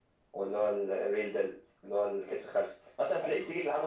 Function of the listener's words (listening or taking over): listening